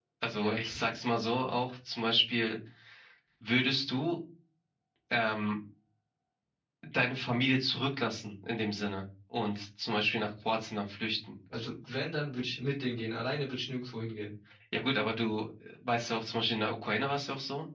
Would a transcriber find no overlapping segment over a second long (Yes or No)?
Yes